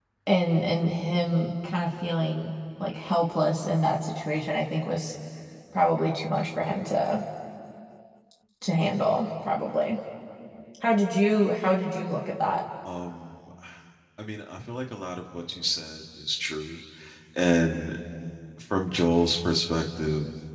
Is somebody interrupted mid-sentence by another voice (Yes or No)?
No